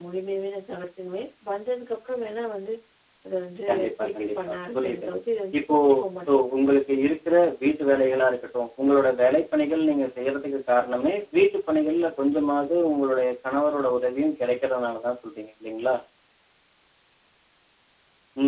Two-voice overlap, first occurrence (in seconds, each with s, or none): 3.7 s